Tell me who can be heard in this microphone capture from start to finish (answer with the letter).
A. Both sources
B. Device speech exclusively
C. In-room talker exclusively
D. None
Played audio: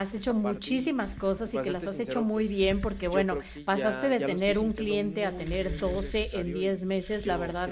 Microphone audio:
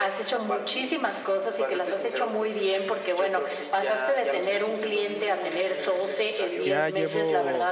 A